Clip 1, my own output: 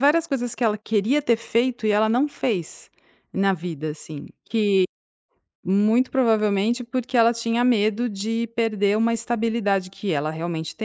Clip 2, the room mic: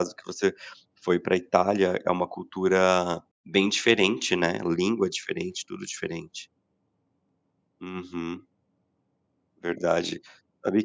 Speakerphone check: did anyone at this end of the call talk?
Yes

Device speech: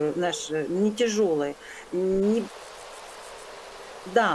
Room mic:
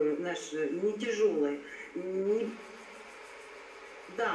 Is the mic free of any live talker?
Yes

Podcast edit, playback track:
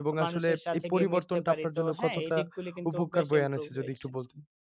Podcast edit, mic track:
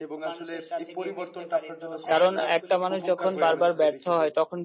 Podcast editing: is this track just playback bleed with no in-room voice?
No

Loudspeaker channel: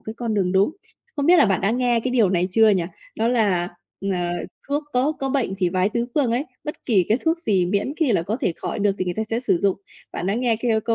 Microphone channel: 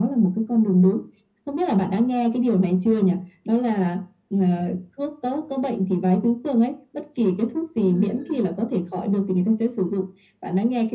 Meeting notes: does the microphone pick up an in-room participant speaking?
Yes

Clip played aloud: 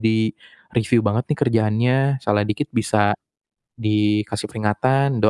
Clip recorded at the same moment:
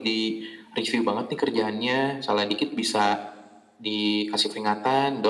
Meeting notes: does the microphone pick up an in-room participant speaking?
No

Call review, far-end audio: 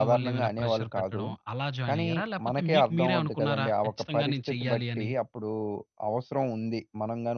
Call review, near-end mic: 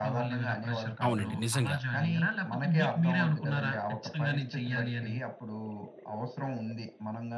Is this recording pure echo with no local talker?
No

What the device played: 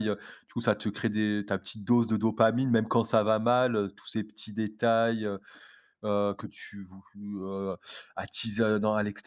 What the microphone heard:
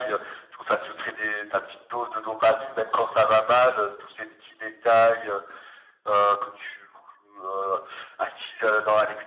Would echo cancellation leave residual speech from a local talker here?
No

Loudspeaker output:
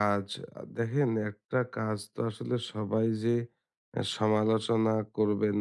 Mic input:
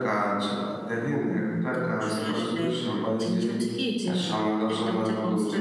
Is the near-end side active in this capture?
Yes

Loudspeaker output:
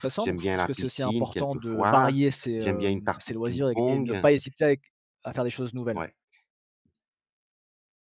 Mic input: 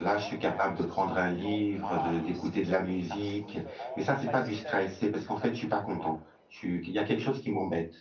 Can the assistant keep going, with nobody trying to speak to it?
No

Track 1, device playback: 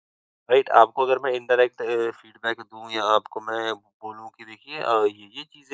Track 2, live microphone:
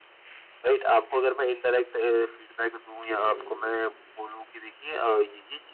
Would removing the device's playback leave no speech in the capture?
No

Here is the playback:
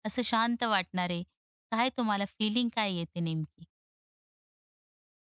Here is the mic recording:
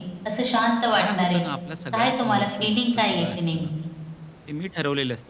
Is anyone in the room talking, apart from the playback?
Yes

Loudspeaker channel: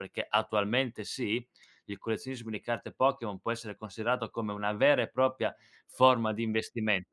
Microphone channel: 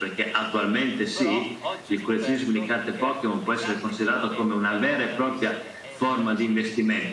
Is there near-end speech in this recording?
Yes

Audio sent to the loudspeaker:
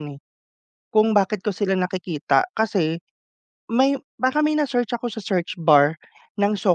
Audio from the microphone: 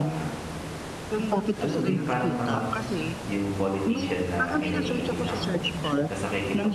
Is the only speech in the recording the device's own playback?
No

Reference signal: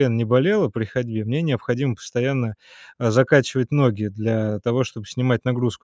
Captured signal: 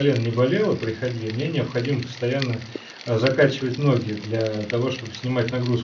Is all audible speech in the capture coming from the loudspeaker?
Yes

